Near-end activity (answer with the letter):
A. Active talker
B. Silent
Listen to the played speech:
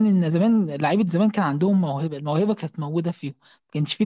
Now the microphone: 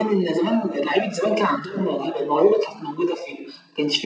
B